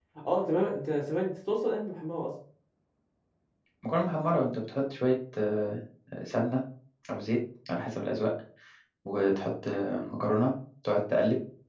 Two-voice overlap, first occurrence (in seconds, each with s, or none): none